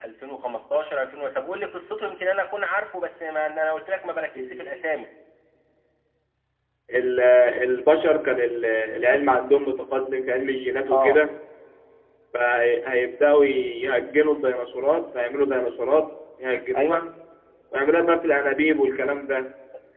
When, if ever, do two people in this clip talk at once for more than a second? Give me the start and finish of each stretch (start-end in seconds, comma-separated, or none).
none